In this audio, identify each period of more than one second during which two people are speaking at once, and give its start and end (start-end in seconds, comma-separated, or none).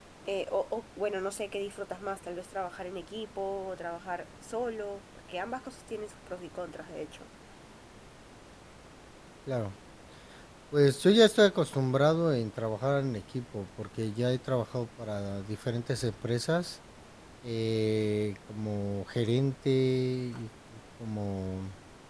none